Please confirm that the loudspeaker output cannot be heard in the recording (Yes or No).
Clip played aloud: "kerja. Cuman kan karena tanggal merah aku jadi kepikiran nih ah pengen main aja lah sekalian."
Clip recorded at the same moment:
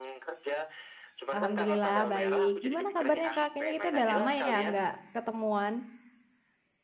No